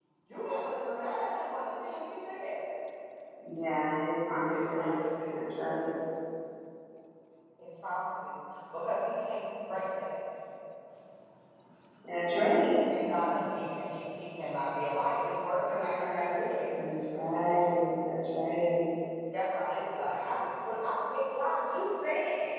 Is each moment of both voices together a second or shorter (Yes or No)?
Yes